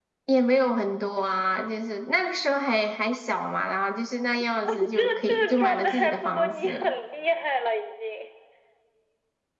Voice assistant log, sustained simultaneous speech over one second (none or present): present